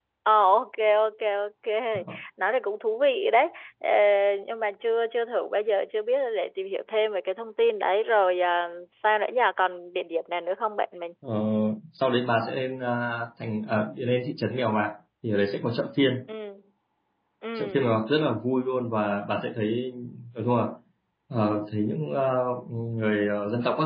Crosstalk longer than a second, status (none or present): none